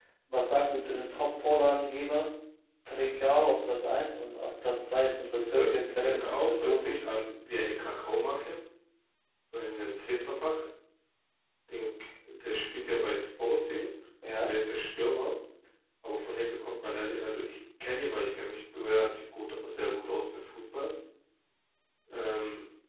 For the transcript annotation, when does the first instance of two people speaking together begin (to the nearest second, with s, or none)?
5 s